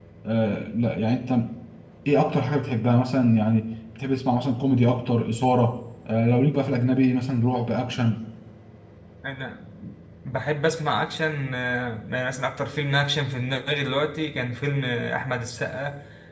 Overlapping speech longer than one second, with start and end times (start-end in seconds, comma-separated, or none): none